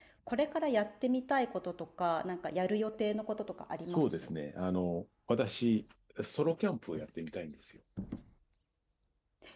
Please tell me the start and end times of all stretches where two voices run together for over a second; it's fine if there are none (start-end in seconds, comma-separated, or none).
none